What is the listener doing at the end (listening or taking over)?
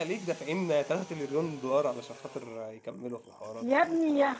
taking over